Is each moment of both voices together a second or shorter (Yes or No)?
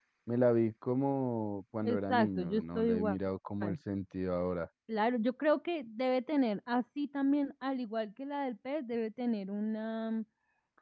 No